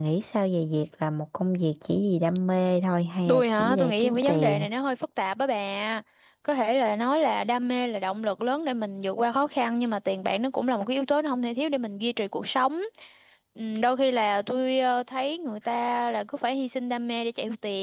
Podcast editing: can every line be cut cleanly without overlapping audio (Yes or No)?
No